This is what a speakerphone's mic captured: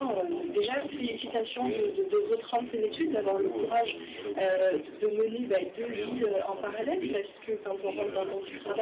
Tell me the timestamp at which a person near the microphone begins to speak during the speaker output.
none

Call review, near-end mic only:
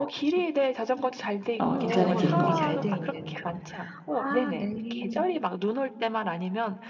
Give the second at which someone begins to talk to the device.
1.6 s

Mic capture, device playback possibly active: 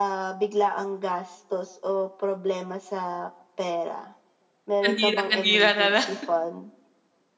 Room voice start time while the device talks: 4.8 s

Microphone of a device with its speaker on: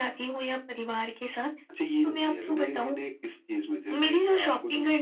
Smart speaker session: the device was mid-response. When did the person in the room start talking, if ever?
none

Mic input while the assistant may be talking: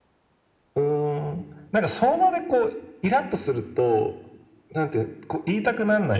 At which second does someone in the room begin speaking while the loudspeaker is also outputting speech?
none

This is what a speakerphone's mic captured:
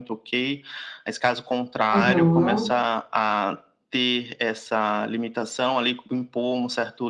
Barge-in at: 1.9 s

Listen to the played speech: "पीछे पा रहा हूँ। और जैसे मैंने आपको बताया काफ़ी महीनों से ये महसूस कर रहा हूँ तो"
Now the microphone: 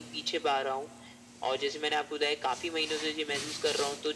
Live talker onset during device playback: none

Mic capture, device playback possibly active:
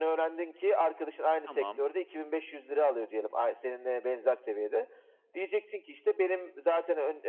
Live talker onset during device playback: 1.4 s

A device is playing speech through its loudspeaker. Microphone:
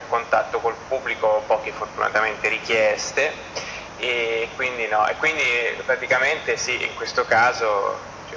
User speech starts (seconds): none

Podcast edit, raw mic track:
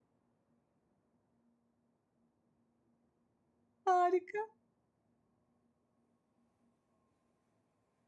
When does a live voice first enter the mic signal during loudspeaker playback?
3.8 s

